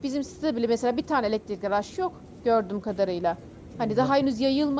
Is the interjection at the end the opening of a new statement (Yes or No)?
No